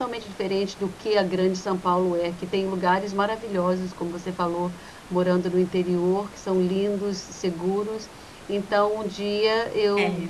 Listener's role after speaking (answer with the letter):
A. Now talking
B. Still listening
B